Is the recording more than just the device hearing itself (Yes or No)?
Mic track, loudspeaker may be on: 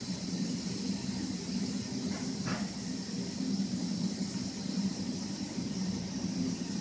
No